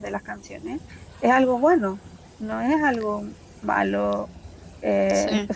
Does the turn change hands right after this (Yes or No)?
No